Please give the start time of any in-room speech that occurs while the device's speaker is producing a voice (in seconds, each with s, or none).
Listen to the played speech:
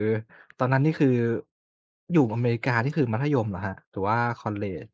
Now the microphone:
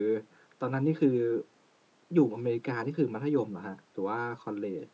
none